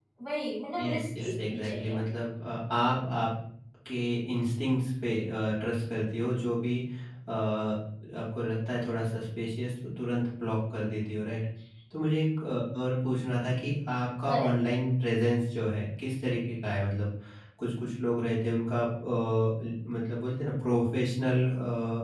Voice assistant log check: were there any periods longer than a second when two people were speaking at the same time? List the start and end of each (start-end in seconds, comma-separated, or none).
0.8-2.0